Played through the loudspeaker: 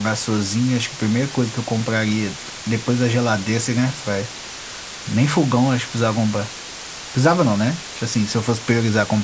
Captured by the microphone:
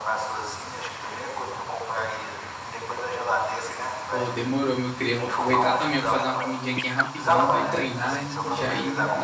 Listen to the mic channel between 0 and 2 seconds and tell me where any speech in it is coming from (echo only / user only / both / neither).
echo only